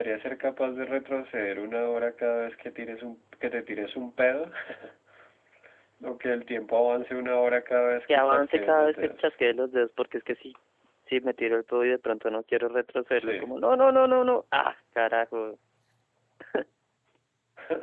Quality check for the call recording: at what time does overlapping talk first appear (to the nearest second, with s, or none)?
8 s